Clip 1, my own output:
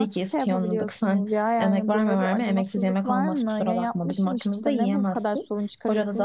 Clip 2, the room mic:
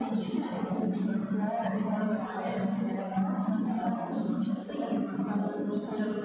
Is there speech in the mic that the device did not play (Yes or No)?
No